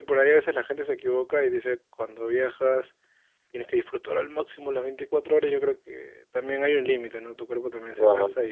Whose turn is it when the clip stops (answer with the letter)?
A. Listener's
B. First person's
B